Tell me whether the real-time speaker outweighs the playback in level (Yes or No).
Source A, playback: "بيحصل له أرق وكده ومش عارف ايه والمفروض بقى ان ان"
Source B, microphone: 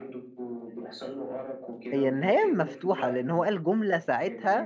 Yes